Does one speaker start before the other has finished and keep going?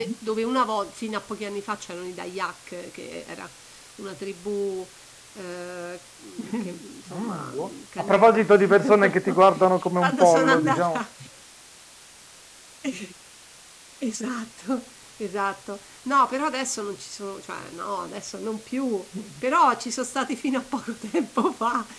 Yes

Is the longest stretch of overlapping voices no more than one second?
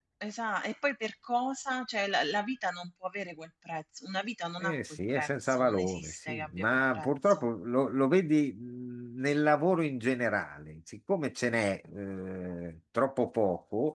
No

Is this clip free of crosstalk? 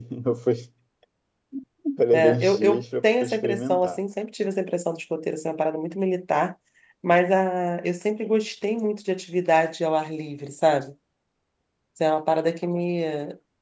No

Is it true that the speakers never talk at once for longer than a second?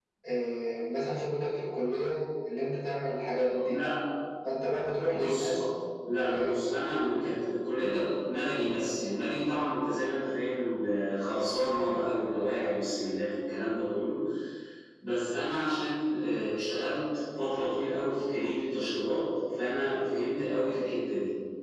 Yes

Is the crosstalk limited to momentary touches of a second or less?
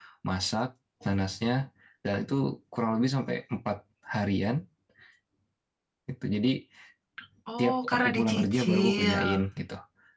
No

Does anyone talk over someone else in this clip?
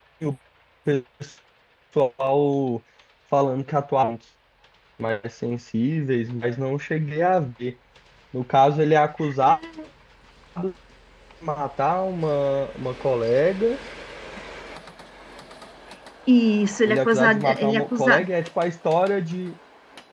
Yes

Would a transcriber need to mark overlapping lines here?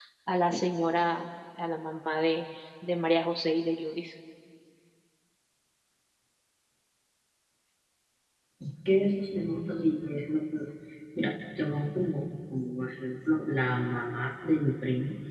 No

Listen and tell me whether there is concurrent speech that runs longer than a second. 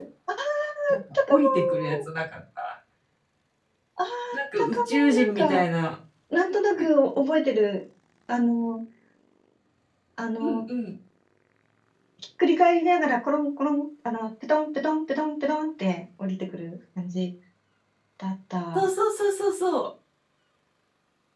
Yes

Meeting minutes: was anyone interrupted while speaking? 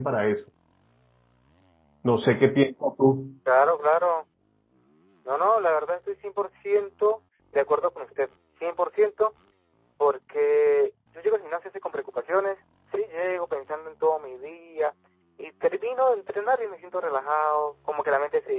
No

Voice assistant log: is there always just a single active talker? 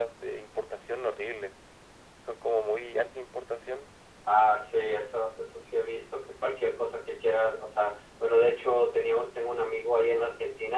Yes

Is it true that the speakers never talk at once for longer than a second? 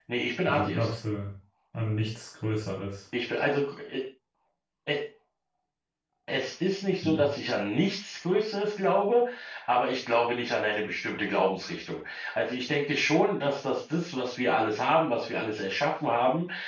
Yes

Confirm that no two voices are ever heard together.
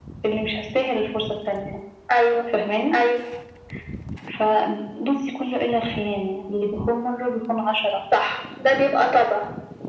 Yes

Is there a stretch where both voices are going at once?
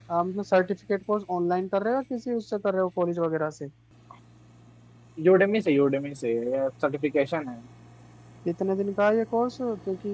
No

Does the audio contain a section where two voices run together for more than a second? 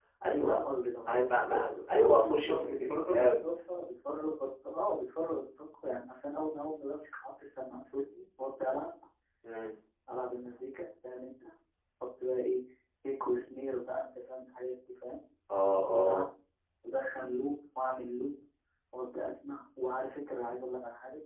Yes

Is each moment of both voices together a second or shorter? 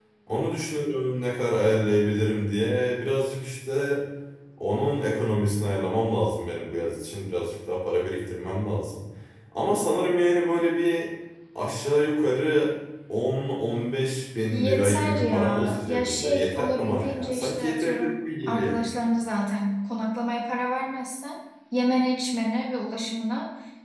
No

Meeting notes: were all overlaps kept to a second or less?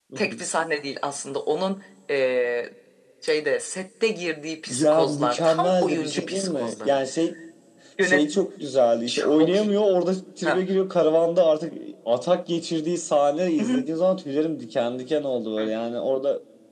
No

